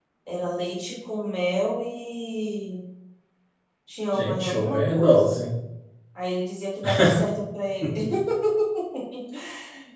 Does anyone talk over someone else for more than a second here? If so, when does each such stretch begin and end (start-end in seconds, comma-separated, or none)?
4.1-5.4